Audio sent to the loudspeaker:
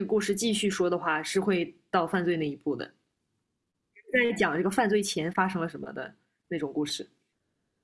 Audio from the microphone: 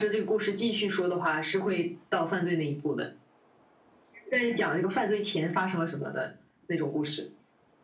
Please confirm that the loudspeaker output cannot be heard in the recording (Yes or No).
No